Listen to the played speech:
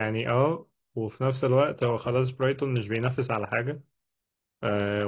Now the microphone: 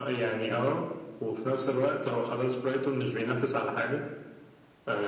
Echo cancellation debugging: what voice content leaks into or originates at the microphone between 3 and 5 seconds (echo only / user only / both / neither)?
echo only